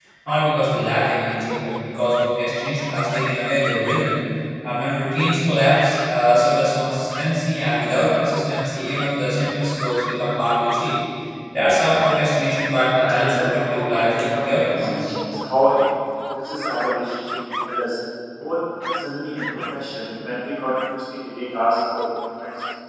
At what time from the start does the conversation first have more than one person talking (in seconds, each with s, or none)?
12.9 s